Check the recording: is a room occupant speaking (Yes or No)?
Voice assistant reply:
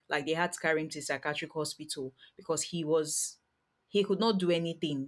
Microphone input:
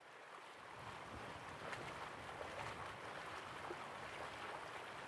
No